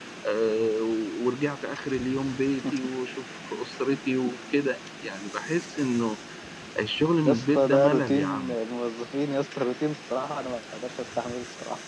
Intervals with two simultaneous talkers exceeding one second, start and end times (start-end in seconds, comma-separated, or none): 7.2-8.6